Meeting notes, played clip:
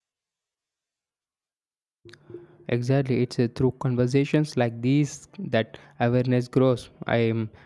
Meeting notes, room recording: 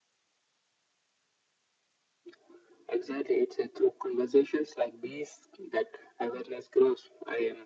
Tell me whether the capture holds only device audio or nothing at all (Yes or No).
Yes